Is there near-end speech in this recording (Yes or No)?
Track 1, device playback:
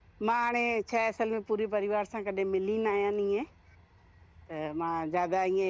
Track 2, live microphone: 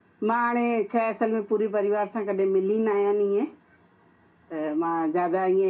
No